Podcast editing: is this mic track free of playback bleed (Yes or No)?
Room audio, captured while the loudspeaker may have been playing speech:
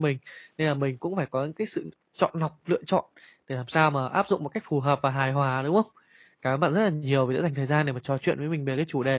Yes